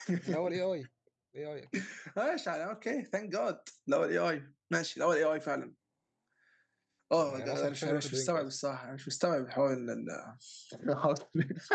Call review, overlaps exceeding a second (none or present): present